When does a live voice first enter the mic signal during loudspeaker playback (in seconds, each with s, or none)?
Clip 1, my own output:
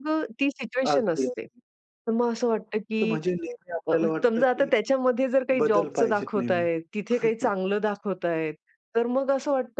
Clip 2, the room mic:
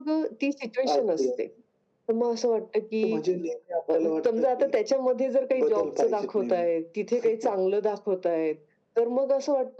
none